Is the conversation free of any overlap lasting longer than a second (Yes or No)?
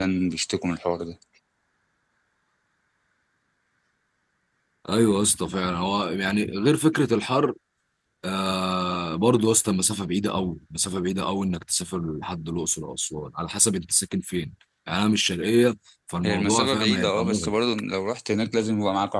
No